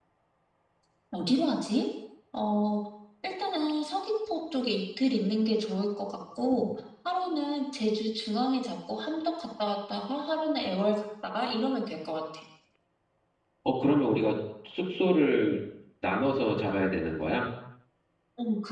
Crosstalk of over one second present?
No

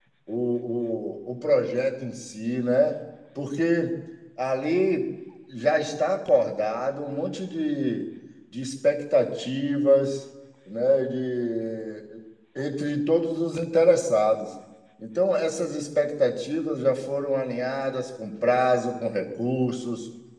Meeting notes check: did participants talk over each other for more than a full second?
No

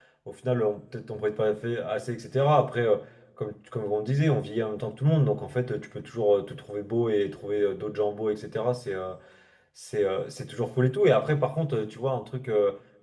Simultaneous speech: No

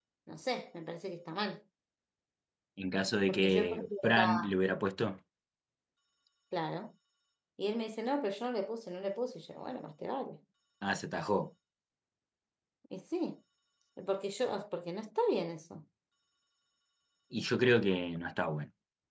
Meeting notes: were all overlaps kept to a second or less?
No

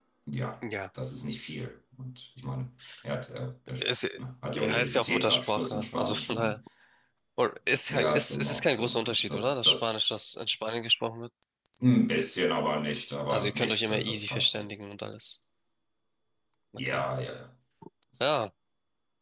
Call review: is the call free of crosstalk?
No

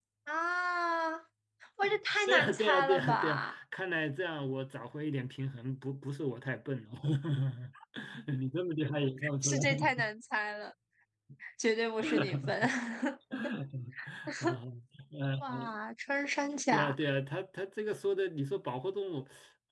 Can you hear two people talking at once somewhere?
Yes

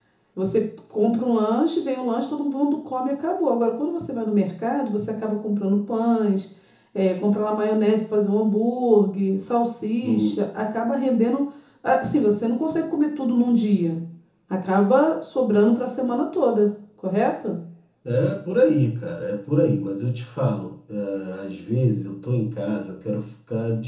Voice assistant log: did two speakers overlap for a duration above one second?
No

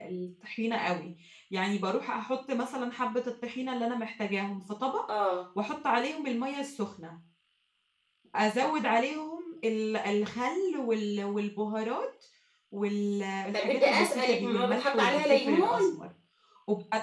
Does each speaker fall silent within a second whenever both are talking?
No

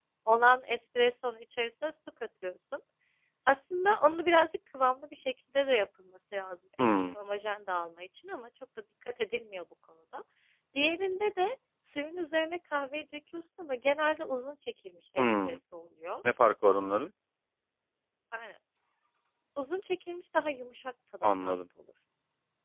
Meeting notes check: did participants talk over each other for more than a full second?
No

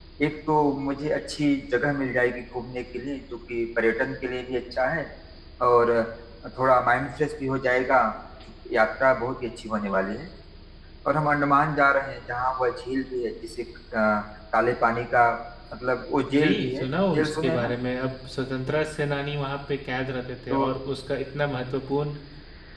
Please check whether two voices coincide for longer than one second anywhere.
Yes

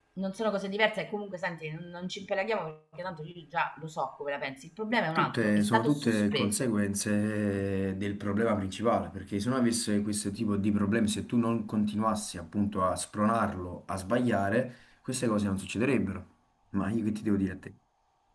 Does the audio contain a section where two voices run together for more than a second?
Yes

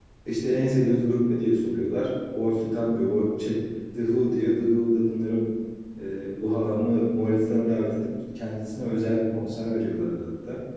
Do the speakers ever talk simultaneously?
No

